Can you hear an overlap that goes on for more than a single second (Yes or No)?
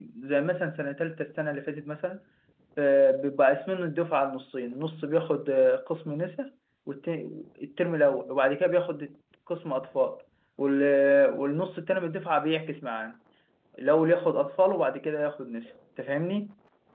No